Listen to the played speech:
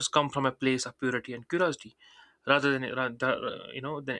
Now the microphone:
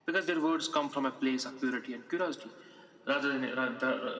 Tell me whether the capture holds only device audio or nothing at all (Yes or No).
Yes